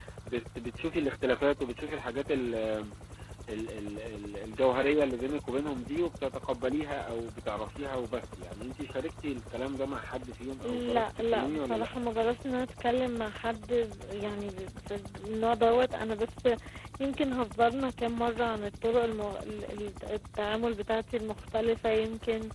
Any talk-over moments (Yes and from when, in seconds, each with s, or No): Yes, from 10.6 s